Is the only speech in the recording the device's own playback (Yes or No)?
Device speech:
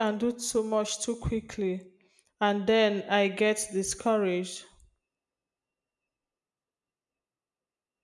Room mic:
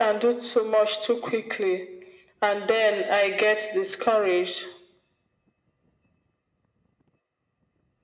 Yes